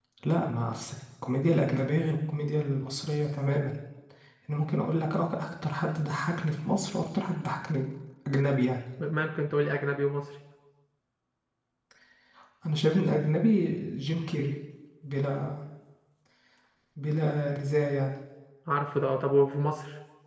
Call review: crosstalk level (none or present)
none